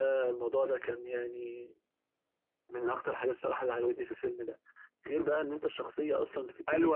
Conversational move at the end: taking over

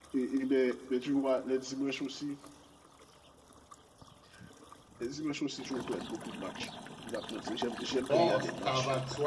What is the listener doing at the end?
taking over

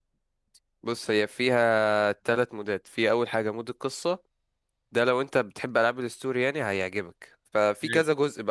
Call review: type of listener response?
listening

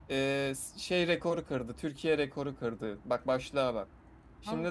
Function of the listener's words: listening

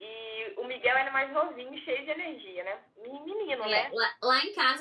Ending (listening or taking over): taking over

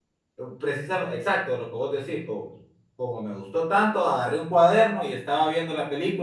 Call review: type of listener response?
listening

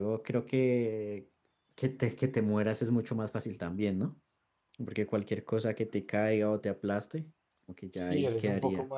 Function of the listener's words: taking over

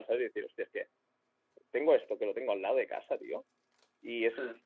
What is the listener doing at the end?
listening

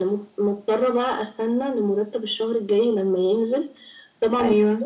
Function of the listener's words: listening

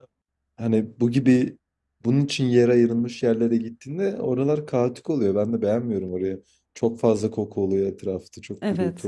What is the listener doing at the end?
taking over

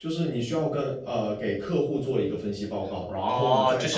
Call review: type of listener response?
taking over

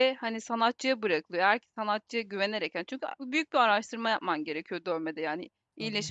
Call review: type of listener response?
listening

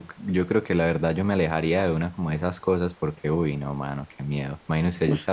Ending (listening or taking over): listening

